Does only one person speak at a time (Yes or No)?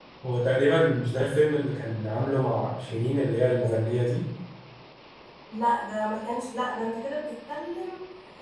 Yes